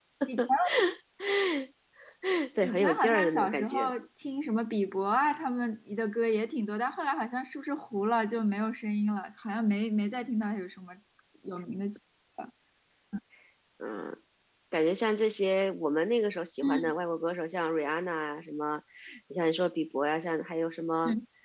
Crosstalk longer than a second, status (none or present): present